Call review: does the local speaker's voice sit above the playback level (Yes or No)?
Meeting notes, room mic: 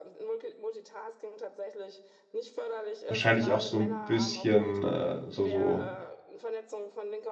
Yes